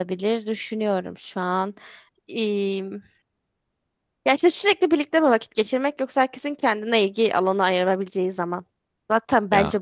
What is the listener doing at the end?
listening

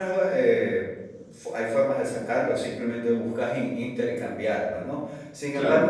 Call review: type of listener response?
listening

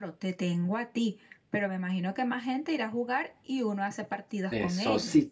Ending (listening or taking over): taking over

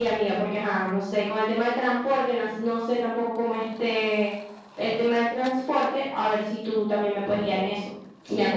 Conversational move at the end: taking over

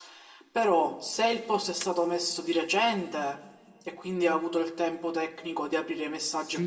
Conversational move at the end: taking over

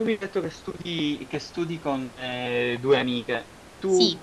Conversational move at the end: listening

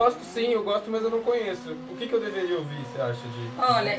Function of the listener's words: taking over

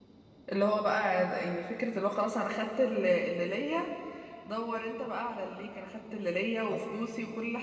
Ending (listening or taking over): listening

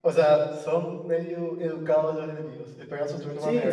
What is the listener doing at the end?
taking over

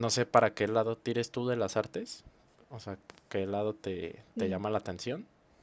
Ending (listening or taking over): listening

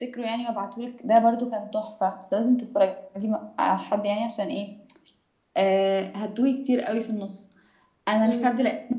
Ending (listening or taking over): listening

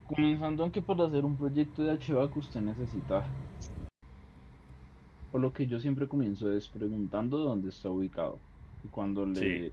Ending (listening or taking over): listening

